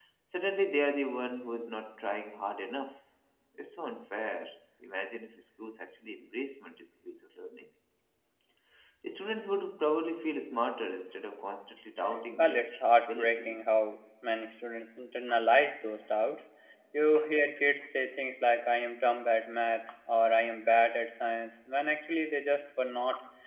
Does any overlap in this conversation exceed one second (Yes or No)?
Yes